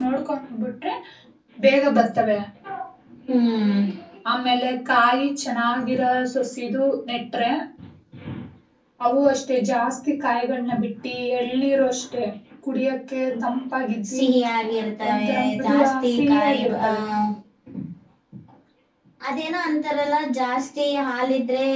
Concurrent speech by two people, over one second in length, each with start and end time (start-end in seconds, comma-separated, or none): 15.1-16.9